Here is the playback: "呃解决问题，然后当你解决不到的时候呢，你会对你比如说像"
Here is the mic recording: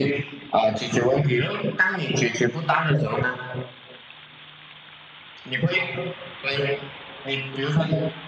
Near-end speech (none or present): none